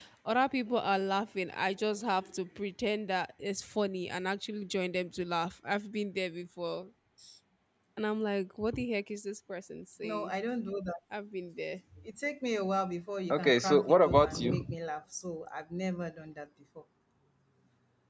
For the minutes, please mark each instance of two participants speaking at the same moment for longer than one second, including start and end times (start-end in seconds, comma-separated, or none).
13.3-14.6